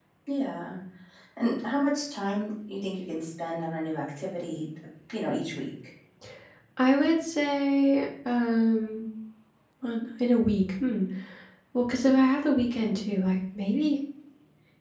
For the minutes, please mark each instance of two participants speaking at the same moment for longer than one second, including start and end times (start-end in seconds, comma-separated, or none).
none